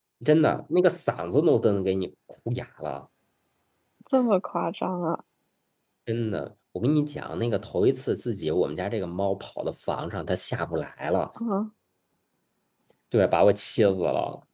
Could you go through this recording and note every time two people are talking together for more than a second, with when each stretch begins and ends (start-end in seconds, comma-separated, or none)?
none